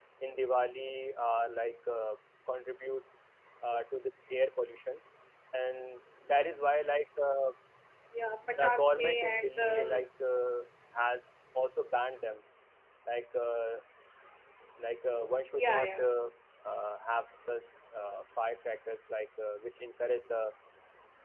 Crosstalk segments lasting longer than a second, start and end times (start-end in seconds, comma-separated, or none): 8.5-10.0